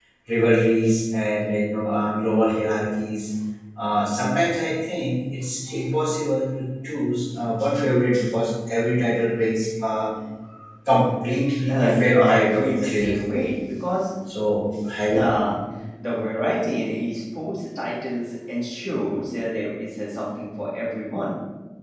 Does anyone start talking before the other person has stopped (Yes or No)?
Yes